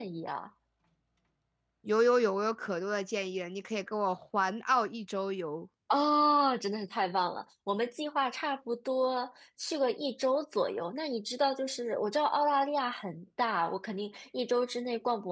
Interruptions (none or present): none